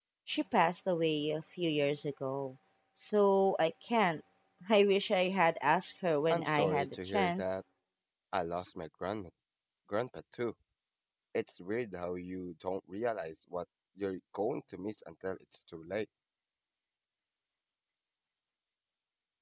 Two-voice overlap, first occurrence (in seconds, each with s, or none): 6.3 s